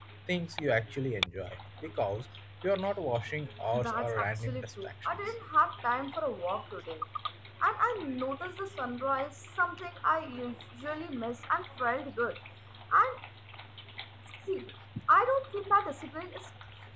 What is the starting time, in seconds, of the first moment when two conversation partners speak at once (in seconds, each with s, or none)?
3.7 s